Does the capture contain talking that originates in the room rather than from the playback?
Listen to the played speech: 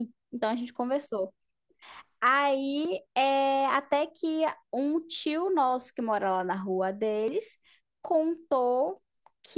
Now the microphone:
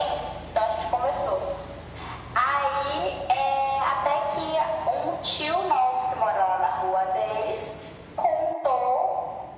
No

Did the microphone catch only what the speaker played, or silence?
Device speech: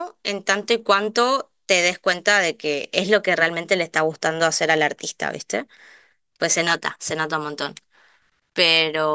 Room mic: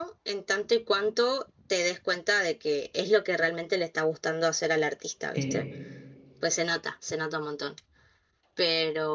No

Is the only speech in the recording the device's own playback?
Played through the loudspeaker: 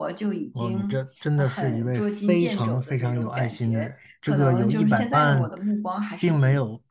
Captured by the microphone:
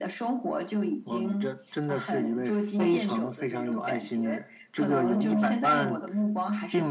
Yes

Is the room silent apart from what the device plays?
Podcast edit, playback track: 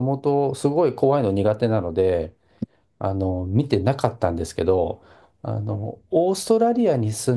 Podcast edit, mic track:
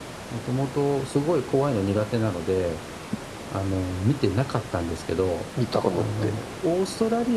No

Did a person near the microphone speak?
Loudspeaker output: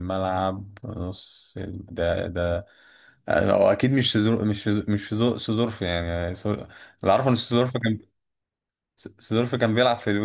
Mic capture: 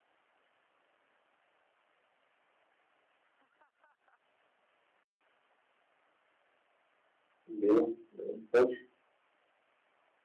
Yes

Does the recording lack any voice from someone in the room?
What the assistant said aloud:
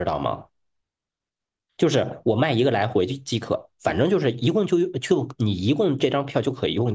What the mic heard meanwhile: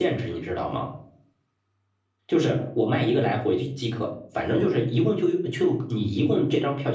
Yes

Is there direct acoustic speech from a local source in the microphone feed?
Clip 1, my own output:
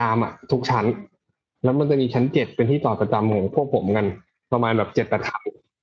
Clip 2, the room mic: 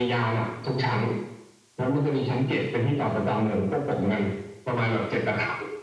No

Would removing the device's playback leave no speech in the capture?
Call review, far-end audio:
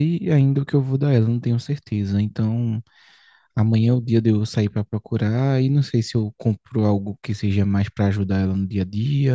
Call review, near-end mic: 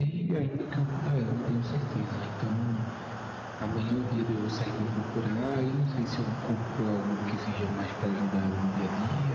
Yes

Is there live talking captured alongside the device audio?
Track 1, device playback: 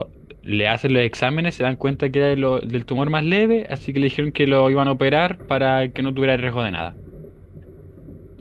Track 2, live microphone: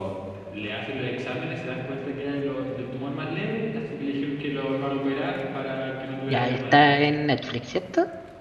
Yes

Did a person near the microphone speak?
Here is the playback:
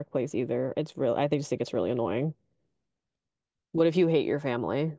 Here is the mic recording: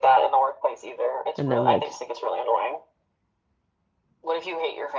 Yes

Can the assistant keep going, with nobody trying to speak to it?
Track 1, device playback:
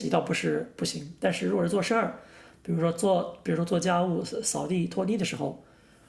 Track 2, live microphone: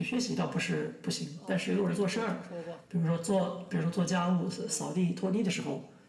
No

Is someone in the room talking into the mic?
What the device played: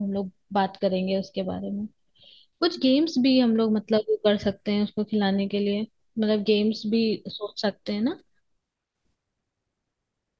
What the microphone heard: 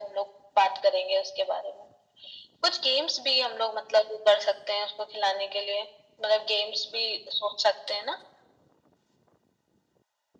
No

